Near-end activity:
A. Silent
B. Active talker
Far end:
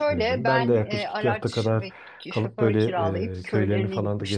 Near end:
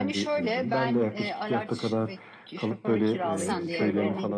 B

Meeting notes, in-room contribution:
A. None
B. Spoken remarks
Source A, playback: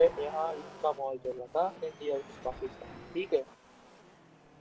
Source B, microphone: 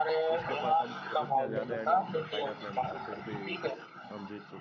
B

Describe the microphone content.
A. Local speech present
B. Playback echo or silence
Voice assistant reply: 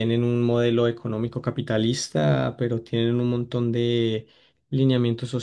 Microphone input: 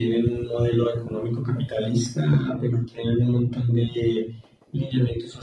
B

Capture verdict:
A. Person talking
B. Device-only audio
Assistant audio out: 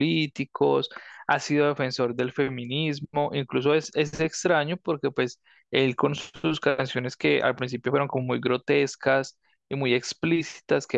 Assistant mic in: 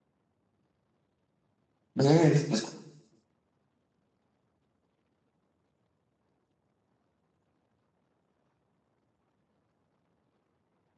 A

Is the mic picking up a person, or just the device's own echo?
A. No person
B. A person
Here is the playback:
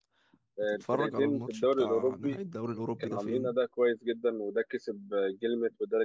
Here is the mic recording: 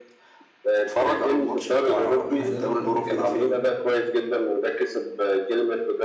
B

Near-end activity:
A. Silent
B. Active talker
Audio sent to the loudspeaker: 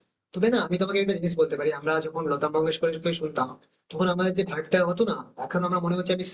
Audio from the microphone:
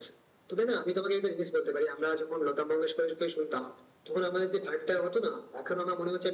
A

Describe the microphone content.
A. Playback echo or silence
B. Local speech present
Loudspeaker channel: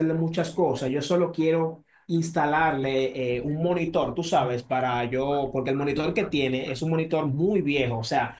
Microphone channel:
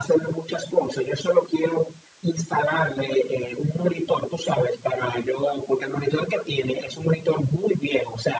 A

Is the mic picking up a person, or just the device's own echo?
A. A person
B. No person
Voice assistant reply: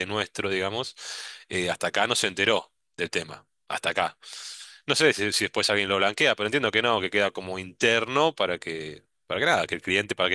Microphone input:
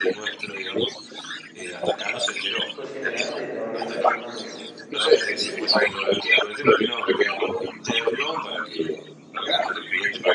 A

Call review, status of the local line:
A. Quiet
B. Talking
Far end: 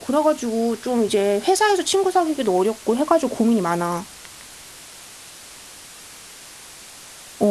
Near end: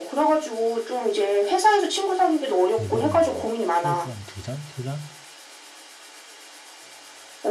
B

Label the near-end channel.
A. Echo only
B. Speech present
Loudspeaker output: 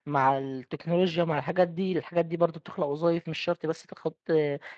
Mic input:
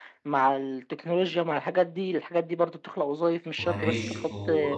B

